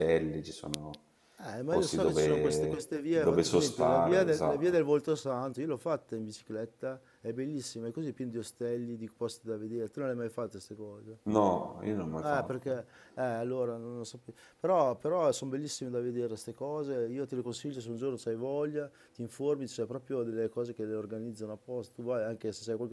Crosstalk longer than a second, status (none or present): present